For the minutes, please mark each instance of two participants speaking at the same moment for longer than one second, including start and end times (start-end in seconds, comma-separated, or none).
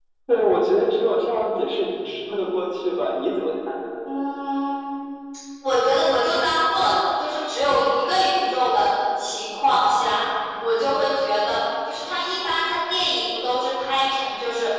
none